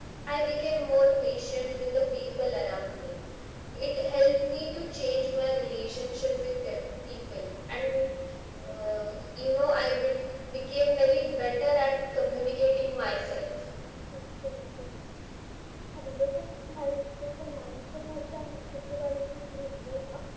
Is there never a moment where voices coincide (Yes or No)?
Yes